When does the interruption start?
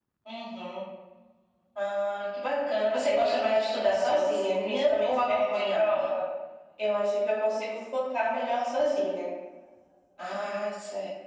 3 s

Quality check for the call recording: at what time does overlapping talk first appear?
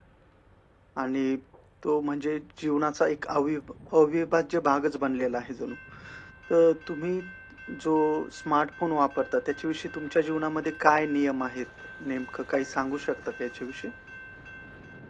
none

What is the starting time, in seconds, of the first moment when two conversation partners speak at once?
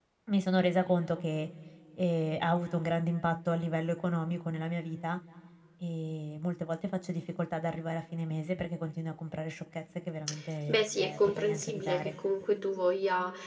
11 s

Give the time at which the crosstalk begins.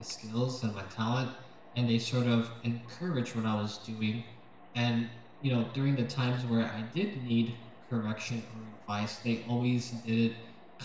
none

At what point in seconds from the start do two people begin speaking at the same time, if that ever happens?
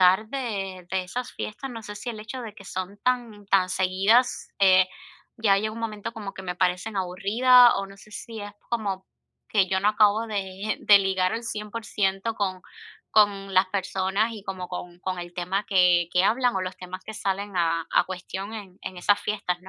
none

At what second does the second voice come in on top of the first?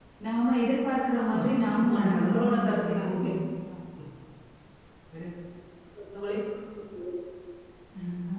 1 s

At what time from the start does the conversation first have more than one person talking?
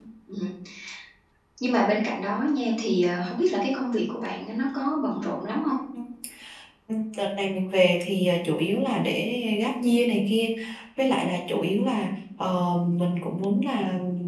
none

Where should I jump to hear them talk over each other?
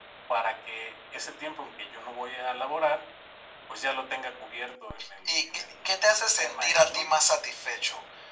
5 s

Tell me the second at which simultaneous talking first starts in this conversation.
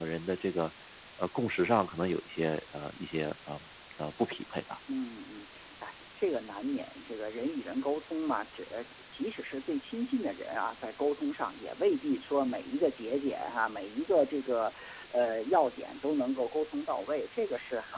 none

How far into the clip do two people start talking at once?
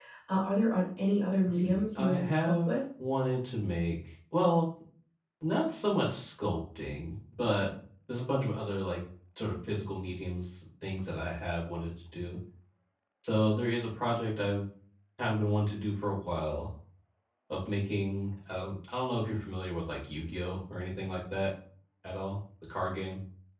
1 s

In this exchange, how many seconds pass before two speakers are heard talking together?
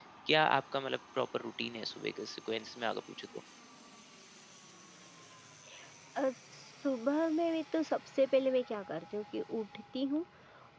none

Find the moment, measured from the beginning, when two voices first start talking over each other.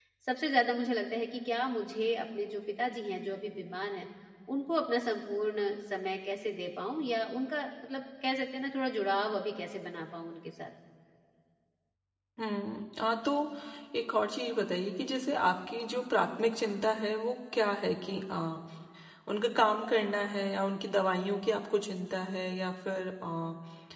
none

